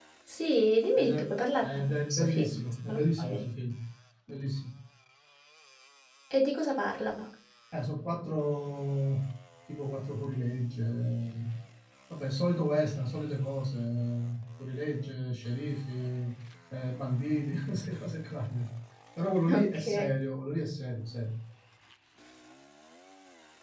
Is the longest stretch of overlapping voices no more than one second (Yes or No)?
No